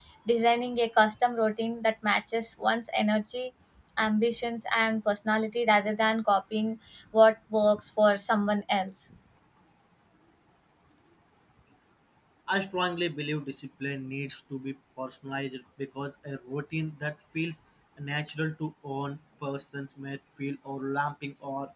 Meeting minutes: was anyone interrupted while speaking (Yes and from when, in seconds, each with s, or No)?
No